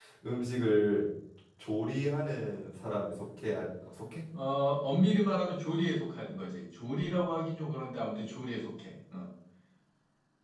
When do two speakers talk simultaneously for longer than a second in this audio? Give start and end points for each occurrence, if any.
none

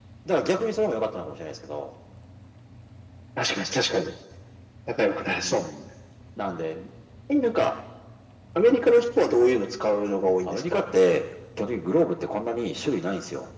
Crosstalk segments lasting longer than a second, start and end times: none

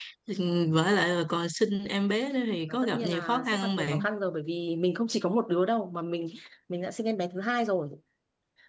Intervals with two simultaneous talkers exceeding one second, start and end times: 2.7-4.0

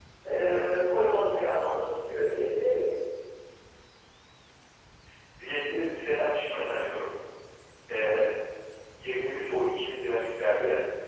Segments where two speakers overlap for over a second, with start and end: none

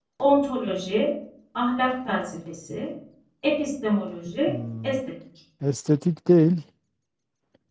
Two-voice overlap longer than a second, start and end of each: none

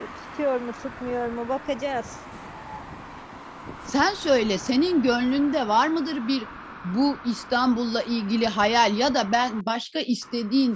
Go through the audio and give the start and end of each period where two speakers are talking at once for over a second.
none

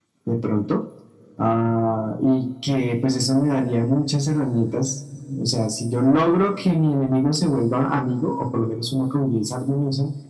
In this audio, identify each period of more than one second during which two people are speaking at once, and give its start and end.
none

